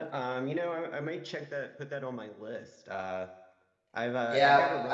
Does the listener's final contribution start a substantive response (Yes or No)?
Yes